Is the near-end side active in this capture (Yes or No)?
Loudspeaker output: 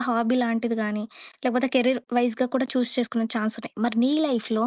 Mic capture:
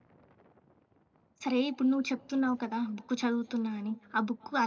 Yes